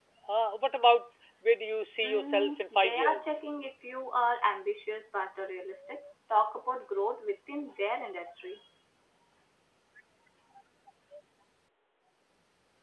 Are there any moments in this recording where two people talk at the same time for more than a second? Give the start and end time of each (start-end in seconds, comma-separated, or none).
2.0-3.3